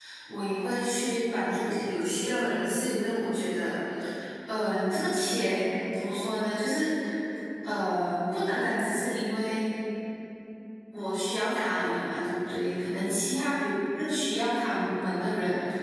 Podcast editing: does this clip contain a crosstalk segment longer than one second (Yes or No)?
No